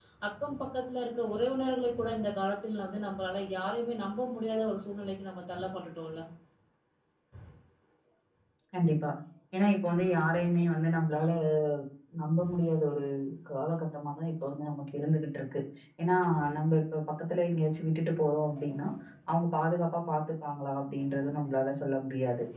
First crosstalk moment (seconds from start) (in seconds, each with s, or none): none